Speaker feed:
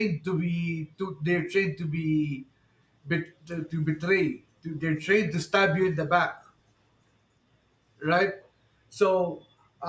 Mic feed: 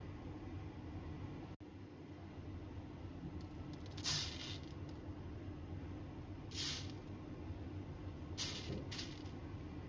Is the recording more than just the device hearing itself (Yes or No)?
No